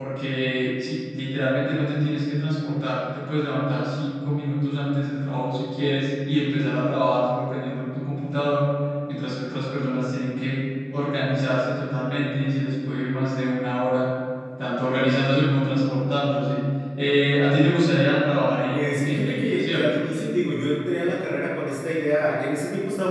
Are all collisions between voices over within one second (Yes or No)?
No